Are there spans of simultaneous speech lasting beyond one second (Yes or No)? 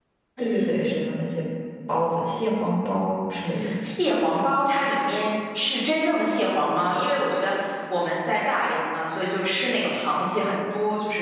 No